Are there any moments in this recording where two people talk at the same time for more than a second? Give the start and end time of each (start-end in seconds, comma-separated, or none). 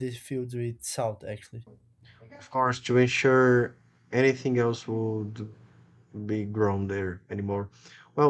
none